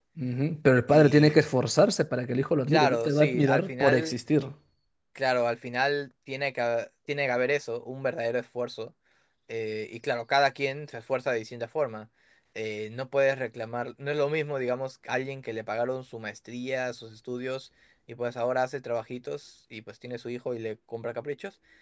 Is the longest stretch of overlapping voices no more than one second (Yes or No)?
No